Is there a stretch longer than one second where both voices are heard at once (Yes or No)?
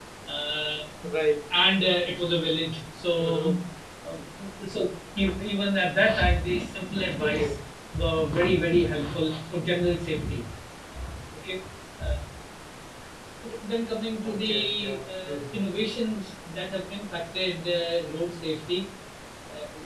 Yes